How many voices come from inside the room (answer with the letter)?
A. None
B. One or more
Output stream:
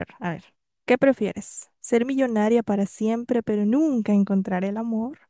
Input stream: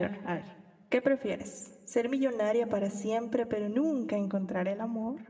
A